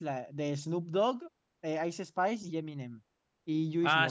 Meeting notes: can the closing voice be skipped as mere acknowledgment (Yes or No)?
No